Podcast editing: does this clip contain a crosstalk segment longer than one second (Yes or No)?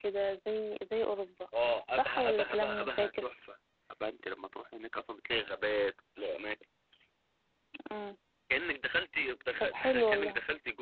Yes